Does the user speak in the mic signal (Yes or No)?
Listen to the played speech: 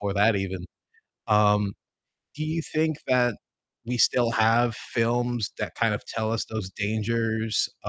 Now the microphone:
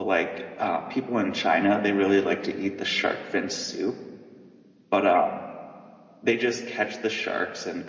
Yes